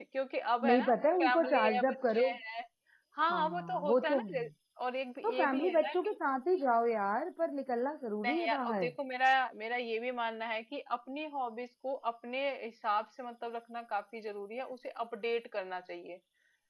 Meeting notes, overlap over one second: present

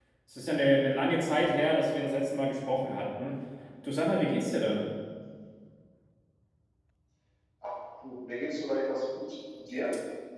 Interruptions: none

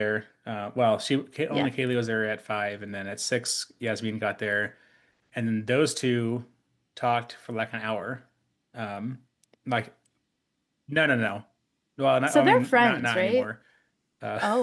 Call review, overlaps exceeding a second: present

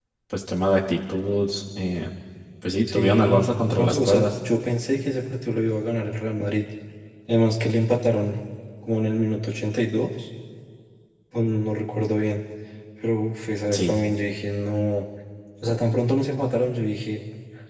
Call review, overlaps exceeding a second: present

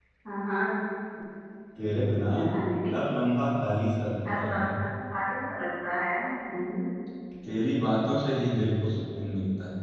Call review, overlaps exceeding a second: none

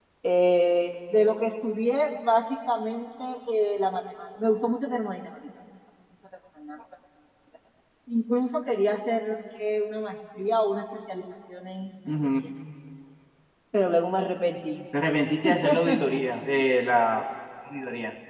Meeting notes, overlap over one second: none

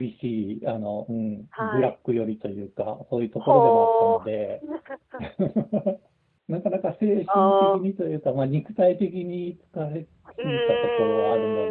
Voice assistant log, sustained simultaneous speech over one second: present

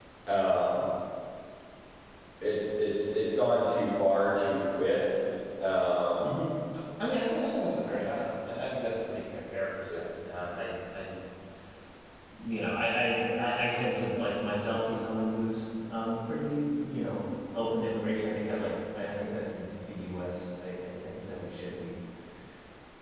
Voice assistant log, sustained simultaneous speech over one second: none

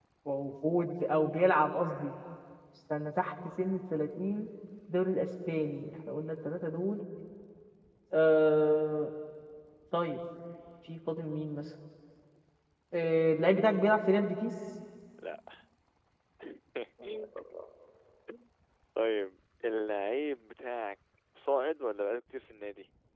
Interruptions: none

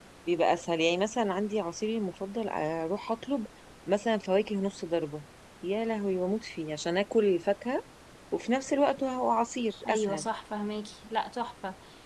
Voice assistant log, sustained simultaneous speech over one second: none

